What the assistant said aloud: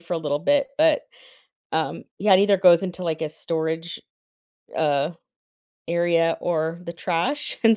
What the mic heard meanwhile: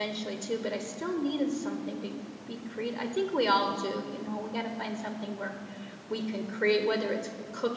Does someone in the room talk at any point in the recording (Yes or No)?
Yes